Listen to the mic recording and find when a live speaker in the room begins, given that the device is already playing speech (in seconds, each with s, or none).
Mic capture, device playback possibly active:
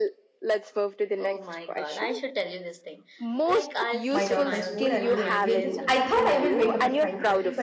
4.1 s